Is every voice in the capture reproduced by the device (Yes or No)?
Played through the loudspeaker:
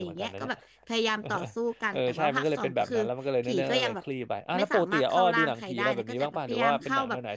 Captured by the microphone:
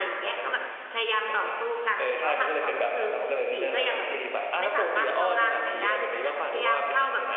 Yes